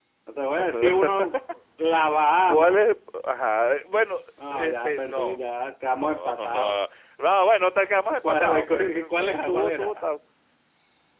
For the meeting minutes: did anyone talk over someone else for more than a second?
Yes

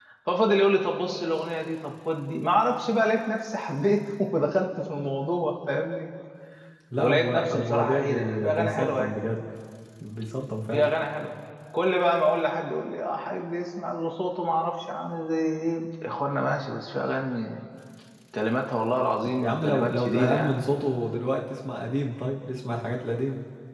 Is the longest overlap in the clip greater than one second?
Yes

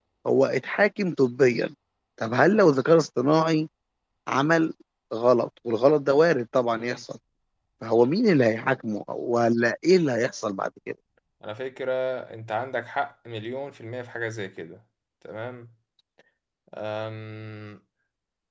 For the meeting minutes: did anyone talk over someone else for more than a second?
No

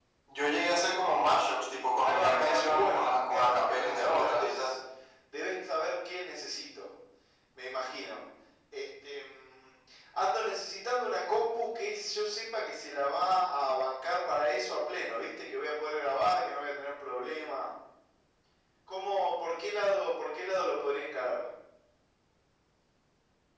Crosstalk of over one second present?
Yes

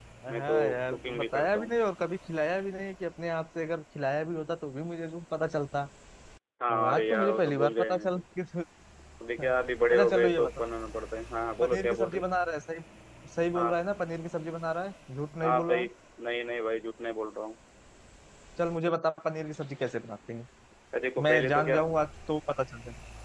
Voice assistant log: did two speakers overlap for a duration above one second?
Yes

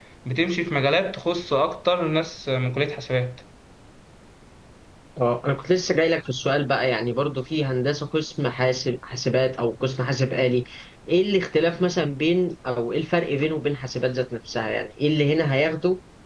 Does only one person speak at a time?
Yes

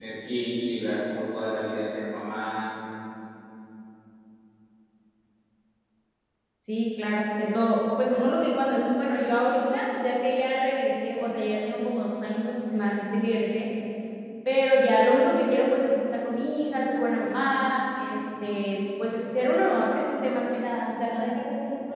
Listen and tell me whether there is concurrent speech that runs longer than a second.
No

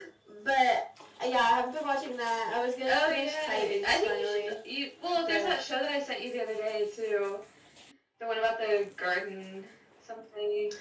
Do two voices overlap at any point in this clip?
Yes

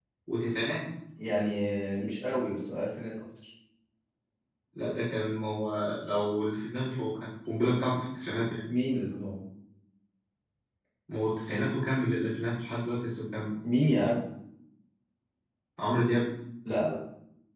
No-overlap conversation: Yes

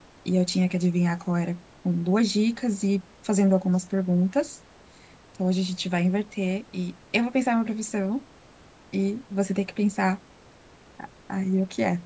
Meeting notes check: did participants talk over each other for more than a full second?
No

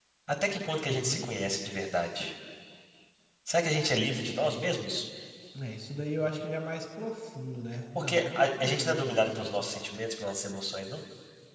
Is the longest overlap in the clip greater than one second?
Yes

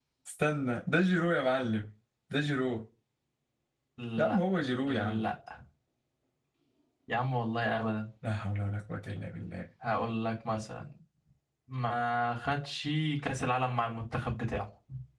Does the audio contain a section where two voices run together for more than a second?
No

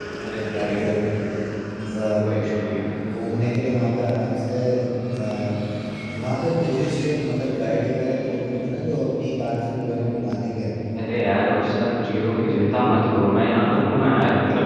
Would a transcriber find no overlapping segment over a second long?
Yes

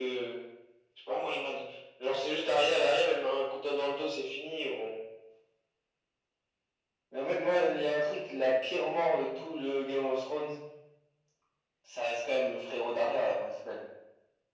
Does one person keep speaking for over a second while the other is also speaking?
No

